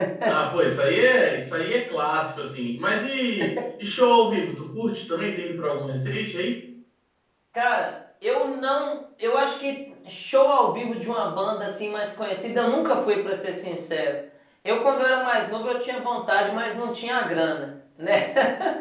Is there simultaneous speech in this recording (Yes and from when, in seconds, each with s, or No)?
No